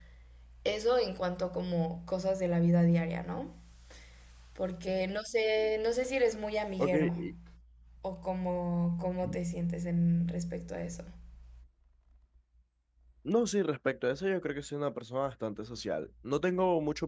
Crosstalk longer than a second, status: none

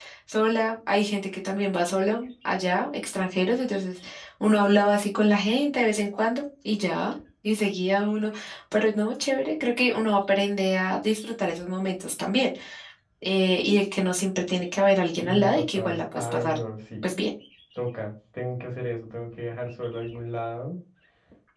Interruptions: present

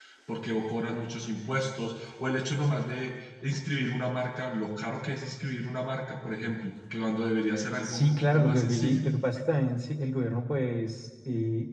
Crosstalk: present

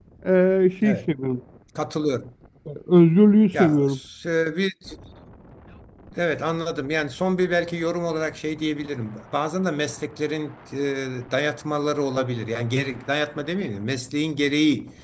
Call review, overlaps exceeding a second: none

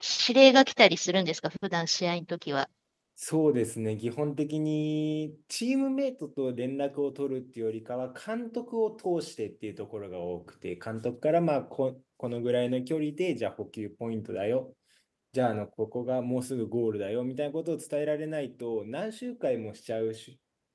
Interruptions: none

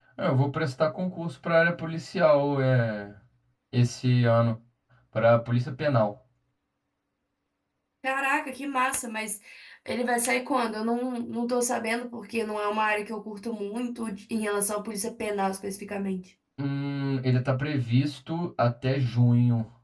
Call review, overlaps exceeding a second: none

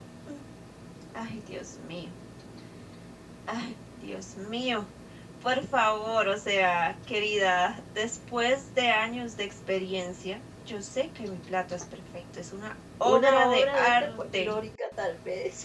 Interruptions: present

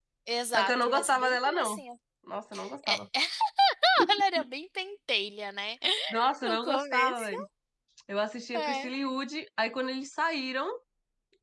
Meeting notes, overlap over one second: present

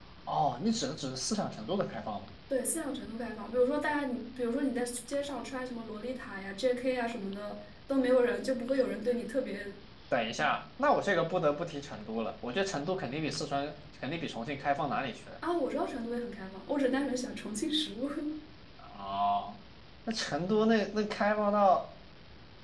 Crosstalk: none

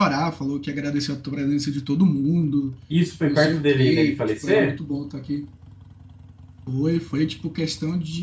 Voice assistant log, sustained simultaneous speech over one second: present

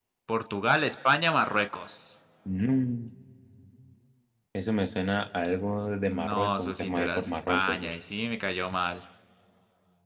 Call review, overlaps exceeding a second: present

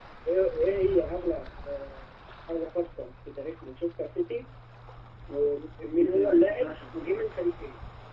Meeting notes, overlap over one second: present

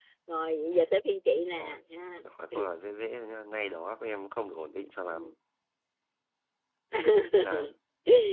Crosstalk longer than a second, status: none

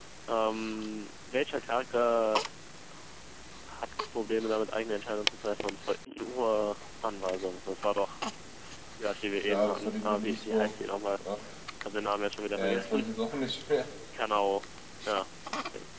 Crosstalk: present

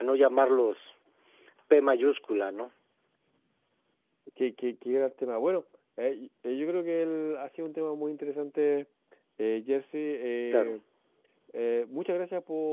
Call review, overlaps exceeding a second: none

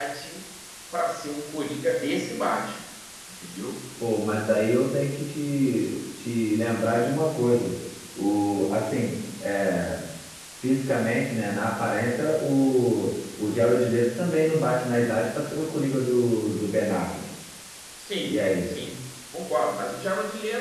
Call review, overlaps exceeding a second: none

